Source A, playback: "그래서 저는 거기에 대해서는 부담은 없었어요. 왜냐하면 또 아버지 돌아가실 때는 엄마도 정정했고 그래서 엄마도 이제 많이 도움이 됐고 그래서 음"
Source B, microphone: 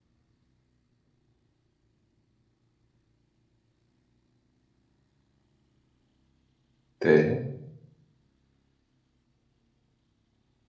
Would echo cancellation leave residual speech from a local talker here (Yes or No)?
Yes